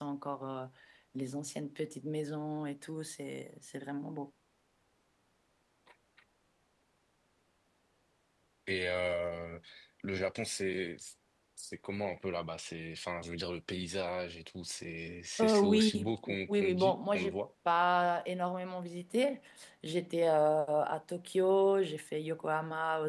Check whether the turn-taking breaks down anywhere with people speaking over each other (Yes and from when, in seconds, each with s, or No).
Yes, from 15.4 s